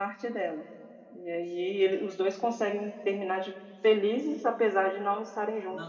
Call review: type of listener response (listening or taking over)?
taking over